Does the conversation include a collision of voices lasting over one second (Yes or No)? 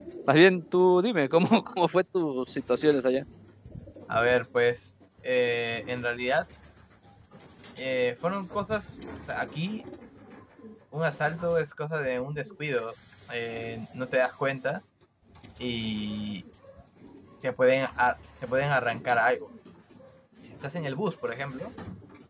No